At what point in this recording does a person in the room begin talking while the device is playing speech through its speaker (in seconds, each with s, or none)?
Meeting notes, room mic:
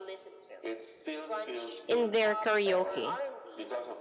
1.9 s